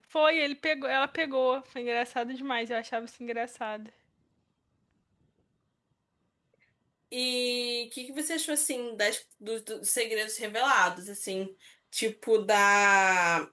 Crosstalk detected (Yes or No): No